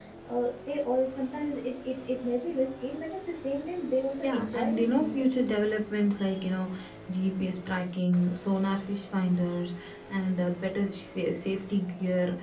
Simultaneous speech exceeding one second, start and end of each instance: 4.2-5.5

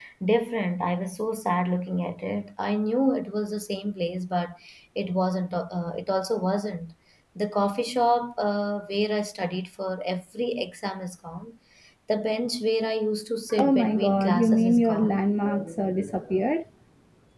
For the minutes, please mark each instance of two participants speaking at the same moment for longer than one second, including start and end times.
13.6-15.2

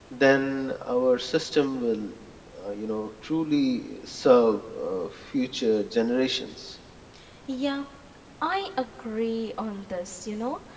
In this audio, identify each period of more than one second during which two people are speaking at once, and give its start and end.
none

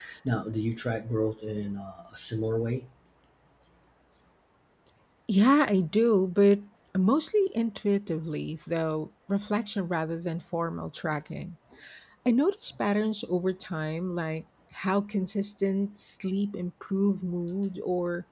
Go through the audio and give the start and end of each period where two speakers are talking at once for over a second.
none

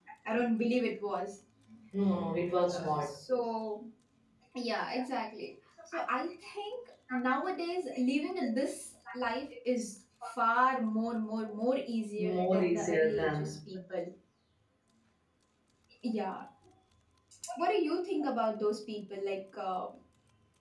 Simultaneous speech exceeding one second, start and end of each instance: 12.2-13.5

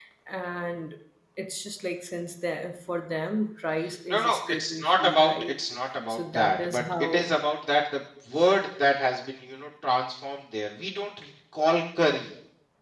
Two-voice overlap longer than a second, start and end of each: 4.1-5.5, 6.1-7.3

